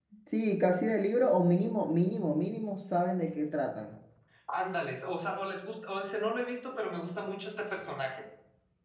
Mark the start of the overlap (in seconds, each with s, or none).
none